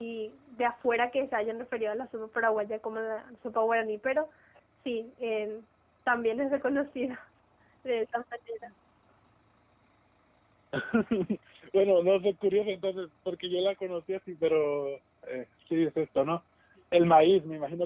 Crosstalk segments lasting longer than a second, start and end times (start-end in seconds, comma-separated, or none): none